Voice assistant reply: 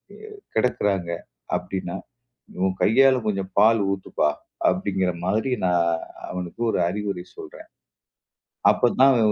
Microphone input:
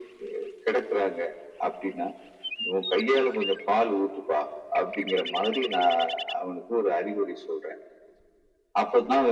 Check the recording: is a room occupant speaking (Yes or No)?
No